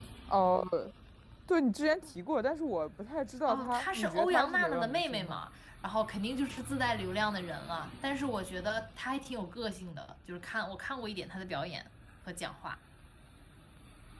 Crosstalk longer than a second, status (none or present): present